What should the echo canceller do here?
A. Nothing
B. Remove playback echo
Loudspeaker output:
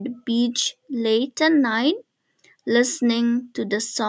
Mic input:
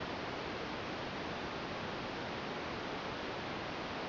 A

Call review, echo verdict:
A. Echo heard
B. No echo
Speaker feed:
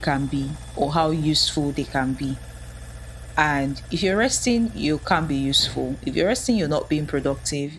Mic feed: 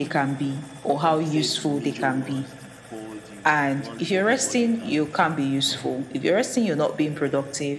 A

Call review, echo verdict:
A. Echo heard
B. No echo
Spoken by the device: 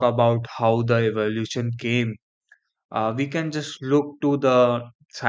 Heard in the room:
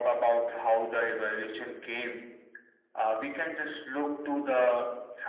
A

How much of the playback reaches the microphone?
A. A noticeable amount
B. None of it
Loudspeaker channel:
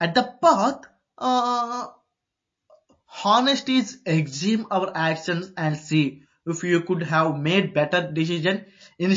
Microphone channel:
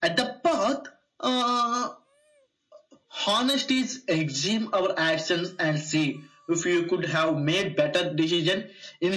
A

